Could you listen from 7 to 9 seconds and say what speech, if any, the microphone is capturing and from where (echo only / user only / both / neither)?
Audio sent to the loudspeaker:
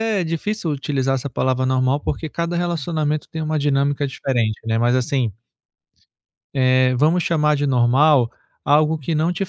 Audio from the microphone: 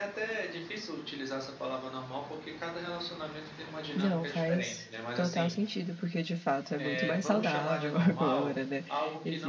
both